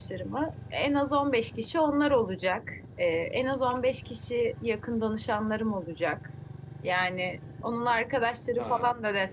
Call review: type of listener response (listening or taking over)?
listening